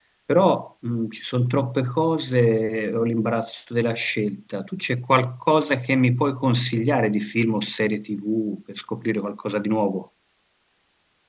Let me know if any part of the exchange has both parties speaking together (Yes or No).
No